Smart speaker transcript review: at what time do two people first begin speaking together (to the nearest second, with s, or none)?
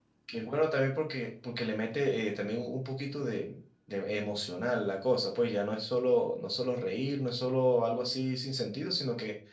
none